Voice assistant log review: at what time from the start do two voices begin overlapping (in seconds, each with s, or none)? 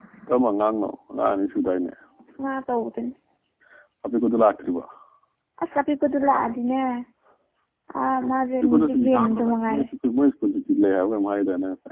8.5 s